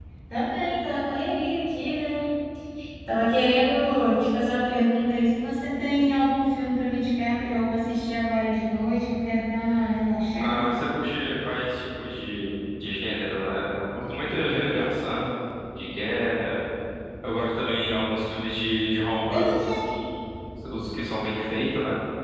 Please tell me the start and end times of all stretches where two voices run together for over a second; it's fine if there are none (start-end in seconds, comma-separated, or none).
none